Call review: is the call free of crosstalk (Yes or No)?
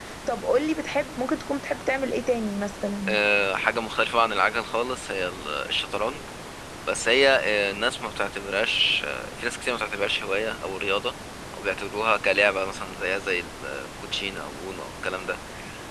Yes